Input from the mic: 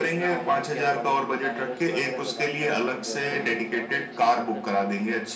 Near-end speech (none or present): present